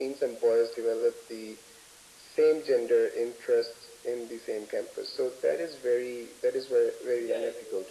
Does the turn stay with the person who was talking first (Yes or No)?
No